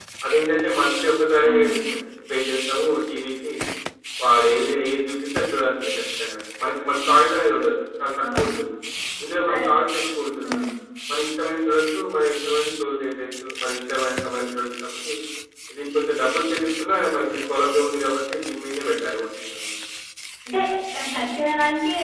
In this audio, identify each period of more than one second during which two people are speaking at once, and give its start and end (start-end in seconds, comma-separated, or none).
none